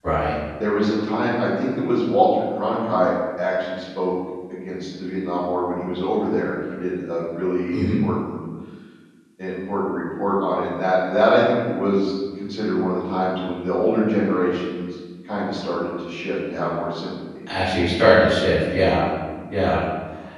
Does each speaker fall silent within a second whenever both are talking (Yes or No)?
Yes